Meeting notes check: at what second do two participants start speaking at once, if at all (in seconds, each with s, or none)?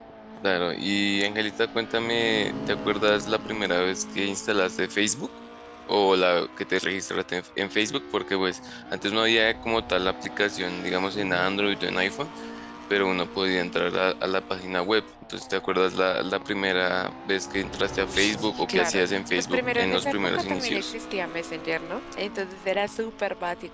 18.0 s